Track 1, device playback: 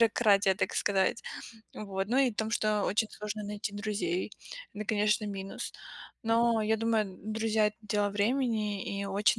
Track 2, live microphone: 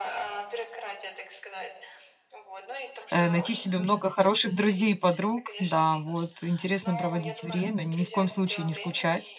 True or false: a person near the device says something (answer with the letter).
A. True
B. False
A